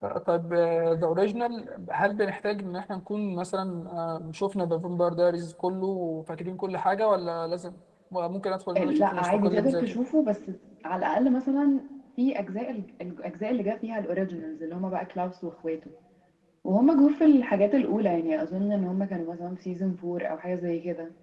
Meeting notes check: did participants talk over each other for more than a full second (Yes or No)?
Yes